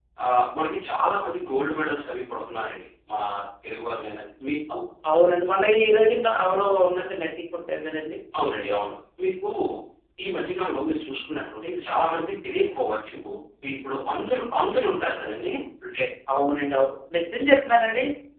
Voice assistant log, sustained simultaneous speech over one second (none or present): none